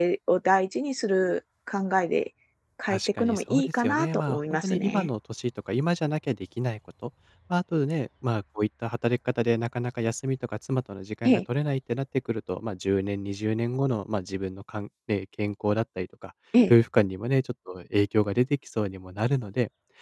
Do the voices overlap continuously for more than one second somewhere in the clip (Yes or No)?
Yes